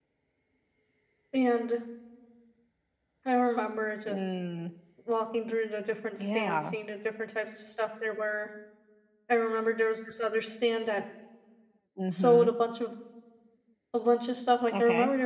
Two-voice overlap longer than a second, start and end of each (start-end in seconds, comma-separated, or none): none